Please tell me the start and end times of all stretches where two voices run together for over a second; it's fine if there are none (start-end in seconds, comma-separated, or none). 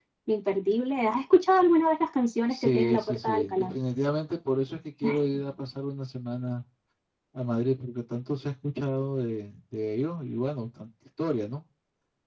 2.5-3.7